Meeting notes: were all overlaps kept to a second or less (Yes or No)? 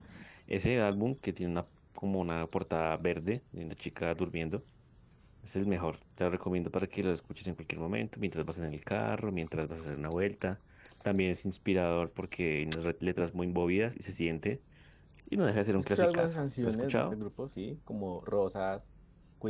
No